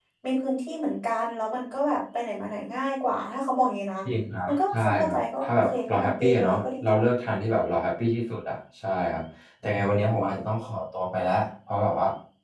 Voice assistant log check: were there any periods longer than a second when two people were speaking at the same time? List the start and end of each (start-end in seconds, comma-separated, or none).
4.5-6.9